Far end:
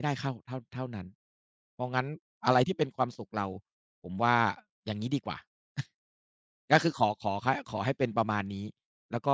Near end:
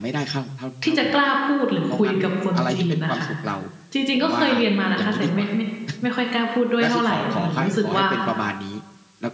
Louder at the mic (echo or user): user